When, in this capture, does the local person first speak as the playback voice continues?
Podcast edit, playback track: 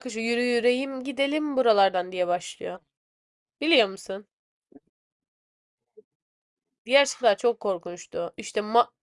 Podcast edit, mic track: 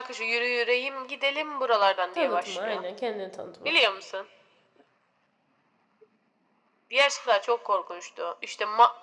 2.1 s

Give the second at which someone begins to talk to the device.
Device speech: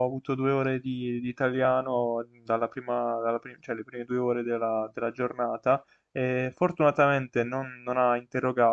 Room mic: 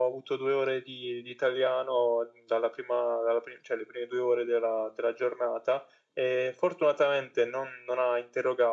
none

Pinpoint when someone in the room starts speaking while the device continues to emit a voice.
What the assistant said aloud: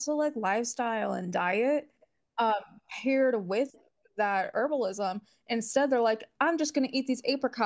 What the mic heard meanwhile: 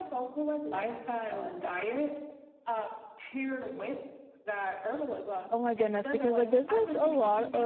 5.5 s

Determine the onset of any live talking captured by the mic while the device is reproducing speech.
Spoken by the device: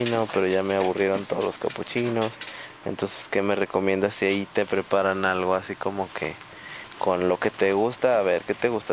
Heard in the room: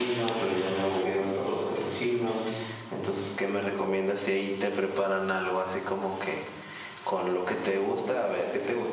none

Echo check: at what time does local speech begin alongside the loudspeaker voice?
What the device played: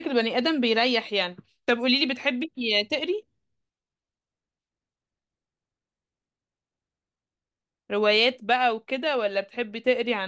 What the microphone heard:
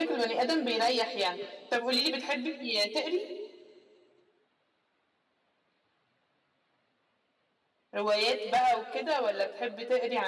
none

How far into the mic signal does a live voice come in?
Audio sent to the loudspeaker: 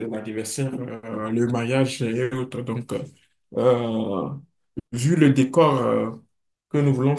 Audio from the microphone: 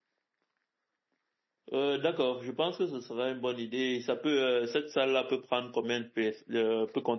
1.7 s

